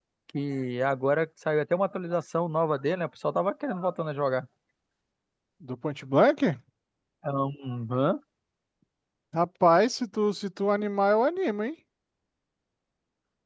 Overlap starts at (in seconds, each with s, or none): none